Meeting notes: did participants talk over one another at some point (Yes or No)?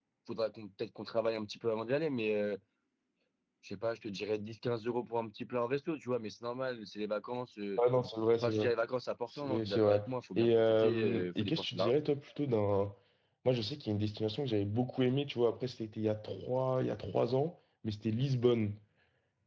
Yes